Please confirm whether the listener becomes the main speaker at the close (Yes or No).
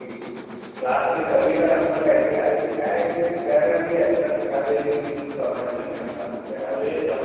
Yes